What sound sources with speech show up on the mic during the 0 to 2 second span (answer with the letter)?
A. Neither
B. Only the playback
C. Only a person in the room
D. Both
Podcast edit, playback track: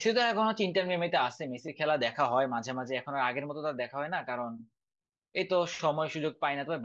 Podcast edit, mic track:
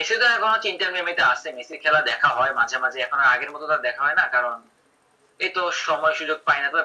B